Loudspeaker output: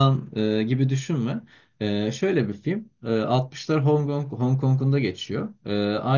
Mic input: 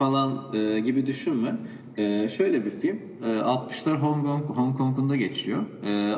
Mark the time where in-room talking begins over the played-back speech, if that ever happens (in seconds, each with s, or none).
none